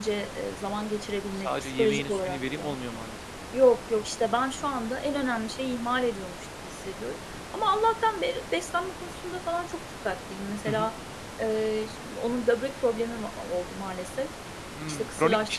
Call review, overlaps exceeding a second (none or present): present